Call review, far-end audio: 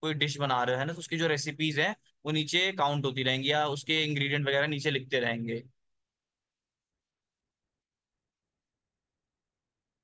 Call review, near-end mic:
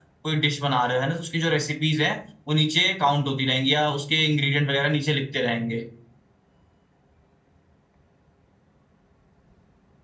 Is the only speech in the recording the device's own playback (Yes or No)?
Yes